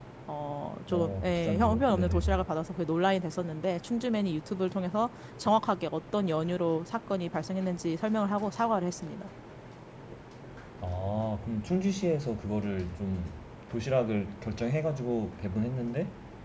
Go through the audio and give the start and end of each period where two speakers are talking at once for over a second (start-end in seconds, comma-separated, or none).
0.9-2.5